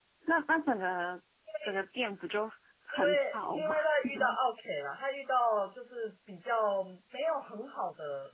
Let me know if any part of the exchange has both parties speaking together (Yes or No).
Yes